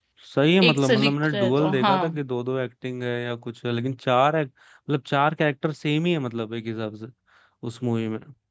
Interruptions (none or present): present